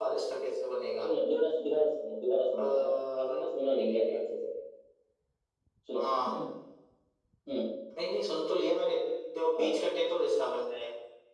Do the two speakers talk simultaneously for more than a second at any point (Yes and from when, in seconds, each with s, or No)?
Yes, from 2.6 s